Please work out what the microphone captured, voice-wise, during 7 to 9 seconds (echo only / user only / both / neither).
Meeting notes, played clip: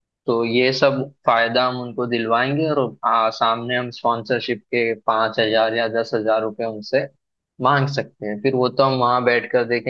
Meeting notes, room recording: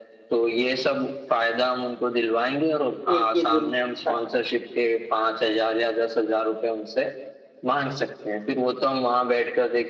echo only